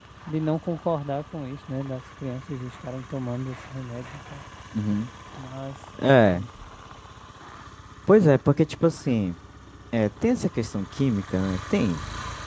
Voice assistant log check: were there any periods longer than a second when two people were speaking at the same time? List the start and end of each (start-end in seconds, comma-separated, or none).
none